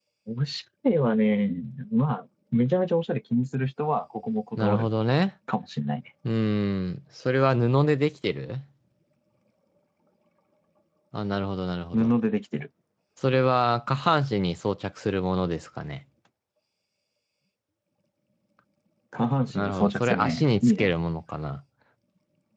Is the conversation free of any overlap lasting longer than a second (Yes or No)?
No